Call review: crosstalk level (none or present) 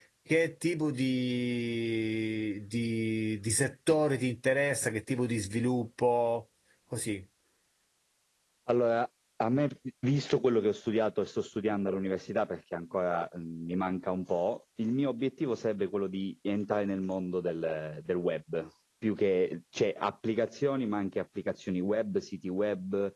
none